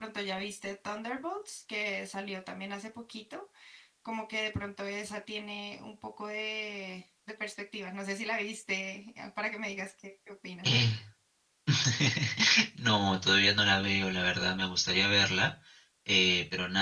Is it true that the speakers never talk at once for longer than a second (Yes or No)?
Yes